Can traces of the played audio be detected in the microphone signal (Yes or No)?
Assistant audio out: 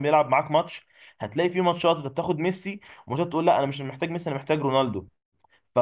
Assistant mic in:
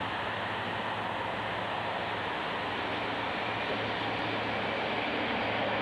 No